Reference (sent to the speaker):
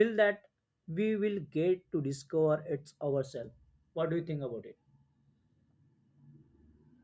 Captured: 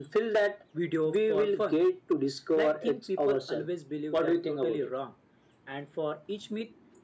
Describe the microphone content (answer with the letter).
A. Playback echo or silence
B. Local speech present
B